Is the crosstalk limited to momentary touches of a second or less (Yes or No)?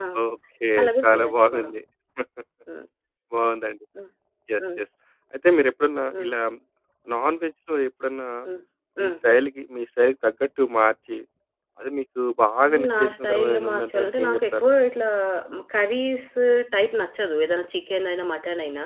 No